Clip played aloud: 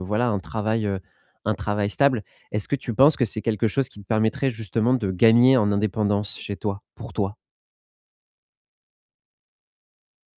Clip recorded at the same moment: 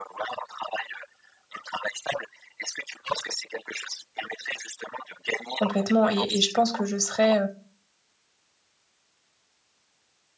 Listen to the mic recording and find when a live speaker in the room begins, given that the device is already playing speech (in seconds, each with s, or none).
5.5 s